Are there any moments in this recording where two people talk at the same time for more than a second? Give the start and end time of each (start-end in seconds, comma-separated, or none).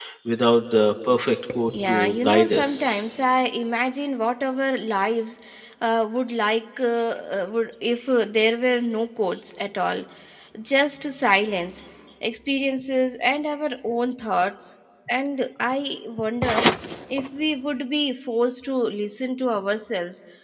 1.7-3.0